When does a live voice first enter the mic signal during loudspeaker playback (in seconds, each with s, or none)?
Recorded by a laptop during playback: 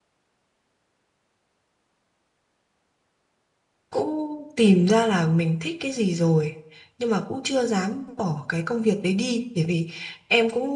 3.9 s